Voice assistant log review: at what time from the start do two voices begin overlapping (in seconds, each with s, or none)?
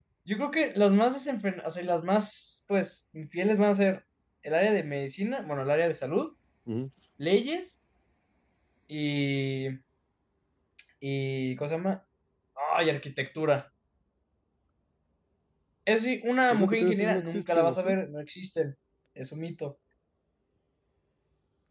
16.5 s